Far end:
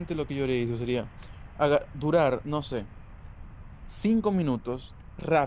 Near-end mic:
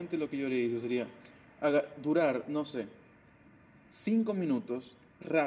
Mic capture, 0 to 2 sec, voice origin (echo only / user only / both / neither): echo only